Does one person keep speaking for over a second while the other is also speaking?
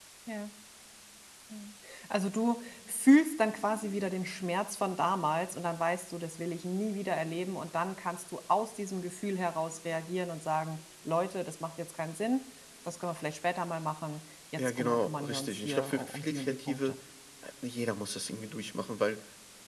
Yes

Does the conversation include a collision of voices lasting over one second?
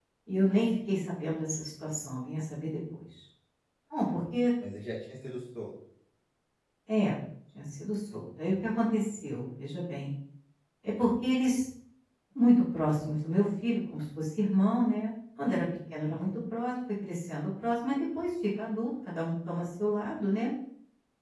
No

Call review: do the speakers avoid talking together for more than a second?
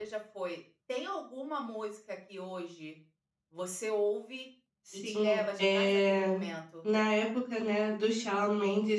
No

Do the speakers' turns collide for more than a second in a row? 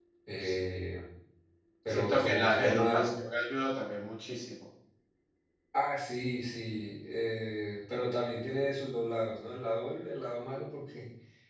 Yes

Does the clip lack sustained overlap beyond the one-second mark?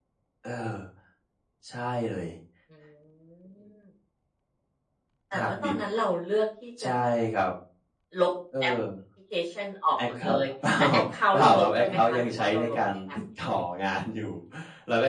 No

